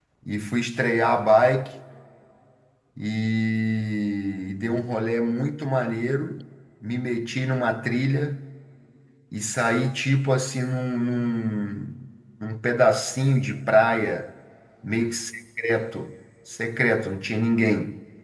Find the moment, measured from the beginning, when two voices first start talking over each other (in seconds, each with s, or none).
none